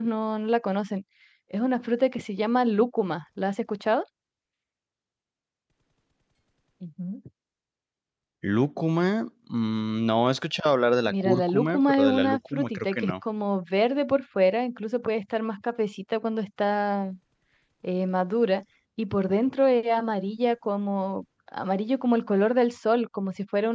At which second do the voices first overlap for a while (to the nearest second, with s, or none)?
11 s